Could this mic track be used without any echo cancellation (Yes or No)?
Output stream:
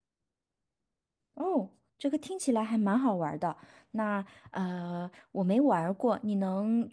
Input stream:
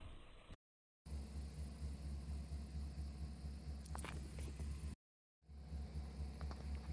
Yes